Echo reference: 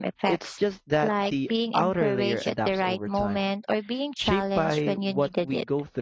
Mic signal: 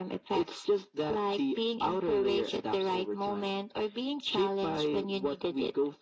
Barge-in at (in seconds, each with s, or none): none